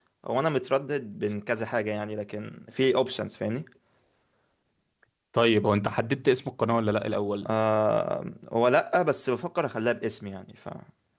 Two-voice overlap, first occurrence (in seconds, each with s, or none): none